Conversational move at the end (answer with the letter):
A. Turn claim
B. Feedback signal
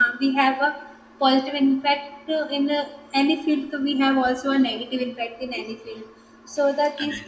B